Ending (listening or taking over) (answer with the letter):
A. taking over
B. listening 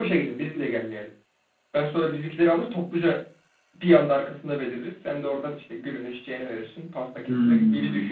A